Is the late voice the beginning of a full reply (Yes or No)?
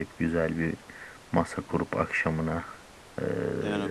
No